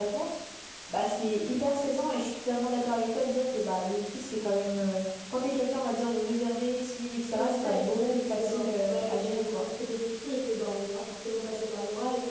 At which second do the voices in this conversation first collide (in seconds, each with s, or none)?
7.4 s